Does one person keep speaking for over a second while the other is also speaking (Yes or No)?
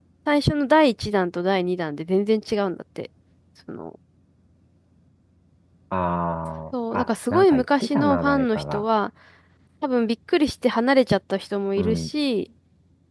Yes